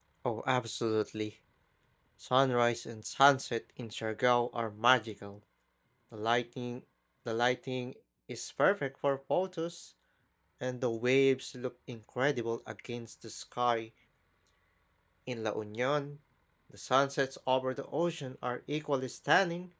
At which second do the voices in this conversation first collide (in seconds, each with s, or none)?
none